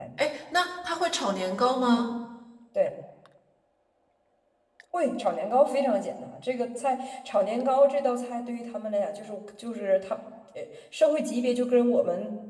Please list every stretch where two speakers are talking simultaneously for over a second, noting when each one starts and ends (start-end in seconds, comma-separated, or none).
none